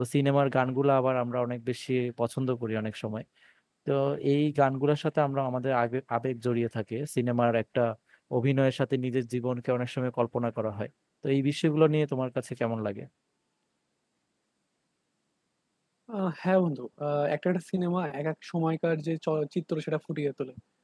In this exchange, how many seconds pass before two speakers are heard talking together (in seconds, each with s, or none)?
none